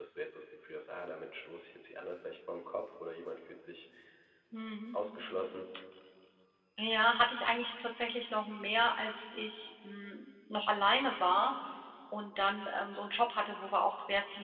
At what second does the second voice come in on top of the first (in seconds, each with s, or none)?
none